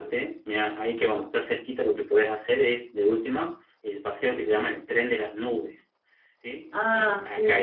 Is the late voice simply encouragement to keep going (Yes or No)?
Yes